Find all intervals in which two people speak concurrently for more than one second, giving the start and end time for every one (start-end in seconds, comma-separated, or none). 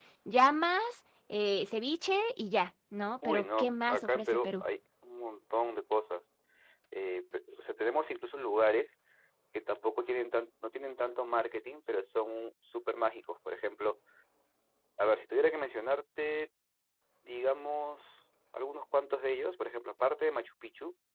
3.2-4.5